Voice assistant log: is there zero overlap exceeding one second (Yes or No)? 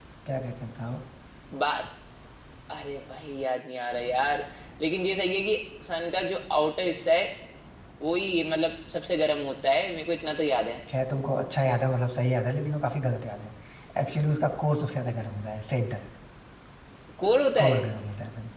Yes